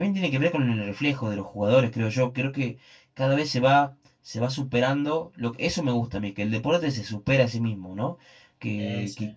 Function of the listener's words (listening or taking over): listening